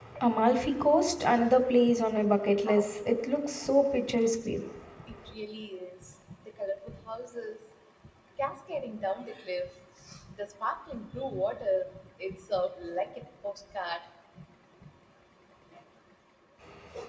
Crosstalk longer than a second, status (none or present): none